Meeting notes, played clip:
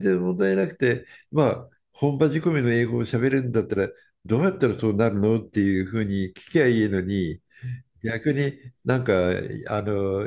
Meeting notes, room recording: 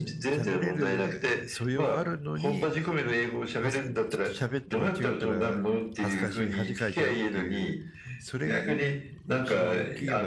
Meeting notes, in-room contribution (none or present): present